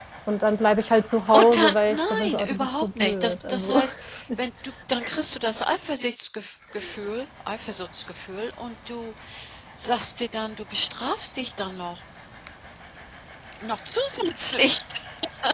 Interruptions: present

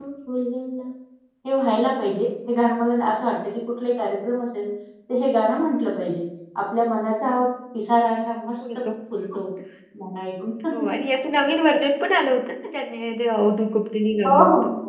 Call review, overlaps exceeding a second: none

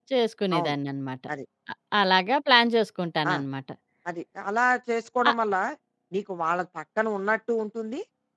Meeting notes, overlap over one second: none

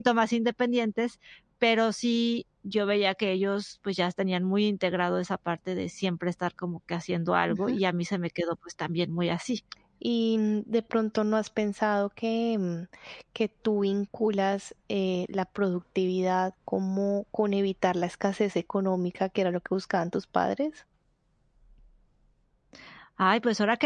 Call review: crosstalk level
none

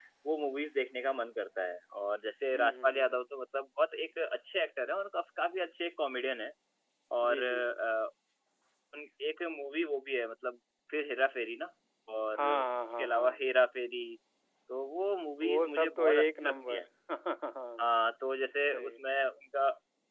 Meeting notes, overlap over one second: present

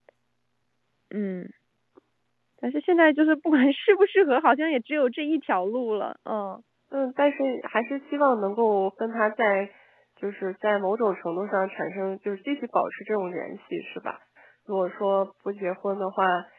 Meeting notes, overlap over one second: none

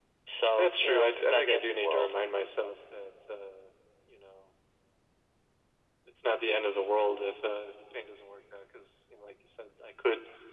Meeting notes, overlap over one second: present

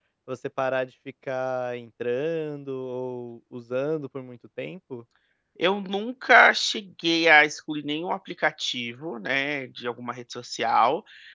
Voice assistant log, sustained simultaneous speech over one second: none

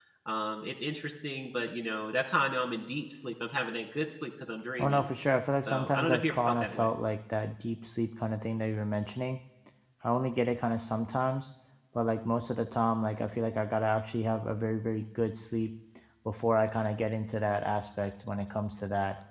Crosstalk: present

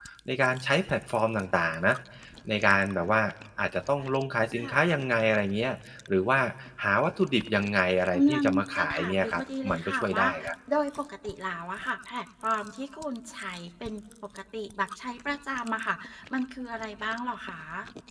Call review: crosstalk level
present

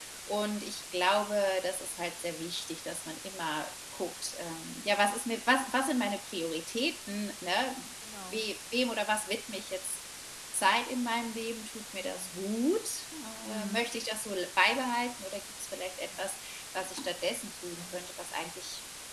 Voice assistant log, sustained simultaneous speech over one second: none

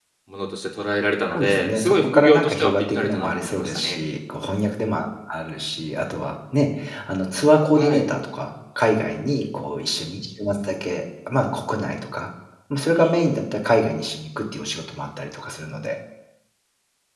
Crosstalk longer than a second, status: present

